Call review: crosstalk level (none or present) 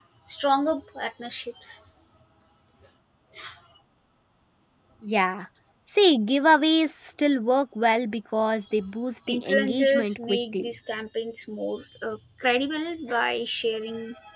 present